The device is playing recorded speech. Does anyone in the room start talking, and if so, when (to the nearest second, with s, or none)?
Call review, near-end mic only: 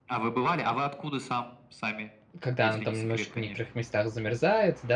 2 s